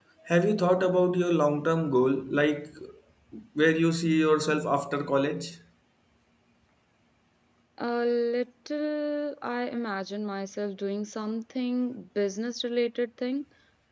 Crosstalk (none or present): none